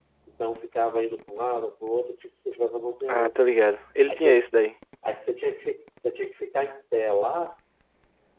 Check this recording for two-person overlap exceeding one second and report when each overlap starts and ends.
none

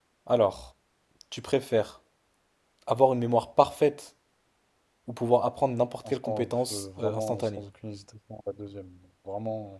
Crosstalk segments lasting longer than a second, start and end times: 6.1-7.6

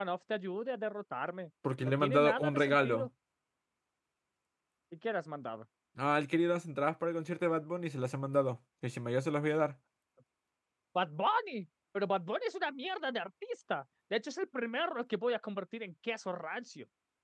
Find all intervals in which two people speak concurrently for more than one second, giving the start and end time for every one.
1.8-3.1

